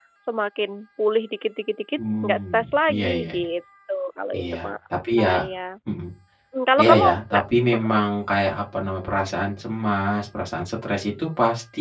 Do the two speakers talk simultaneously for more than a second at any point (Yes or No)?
Yes